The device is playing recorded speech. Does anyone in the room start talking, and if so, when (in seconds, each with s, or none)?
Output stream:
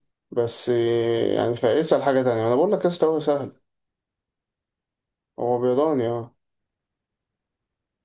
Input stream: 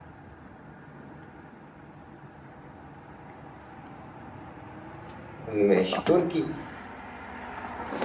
5.4 s